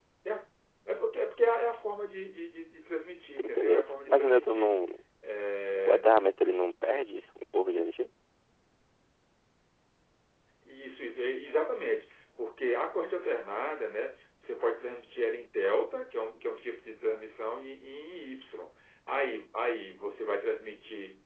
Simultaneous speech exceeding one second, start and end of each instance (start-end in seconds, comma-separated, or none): 3.4-4.7